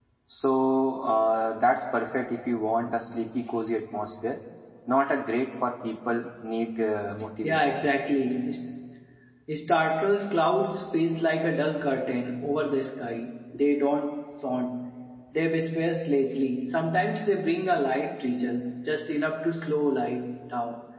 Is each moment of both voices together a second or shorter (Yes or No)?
Yes